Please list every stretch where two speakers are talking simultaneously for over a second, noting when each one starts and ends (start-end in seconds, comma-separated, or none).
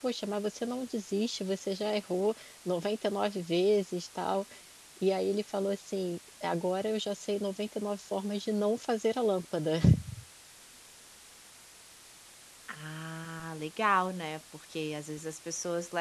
none